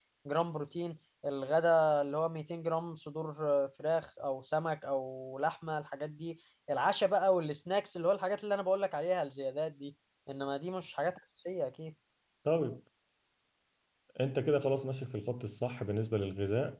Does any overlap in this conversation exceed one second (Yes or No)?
No